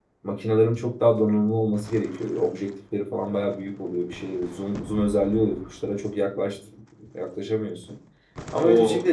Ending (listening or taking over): listening